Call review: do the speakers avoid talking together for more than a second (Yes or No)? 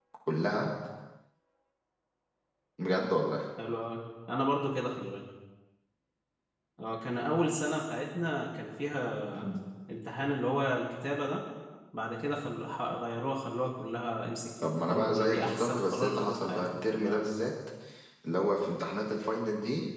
No